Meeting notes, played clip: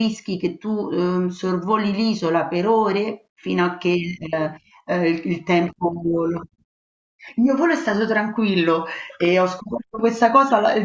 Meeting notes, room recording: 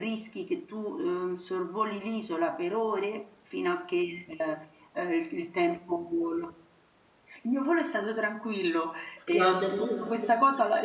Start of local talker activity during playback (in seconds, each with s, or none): 9.3 s